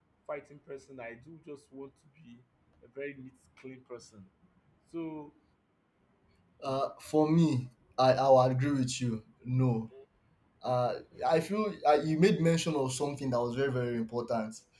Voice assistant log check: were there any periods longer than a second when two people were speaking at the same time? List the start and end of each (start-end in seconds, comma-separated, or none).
none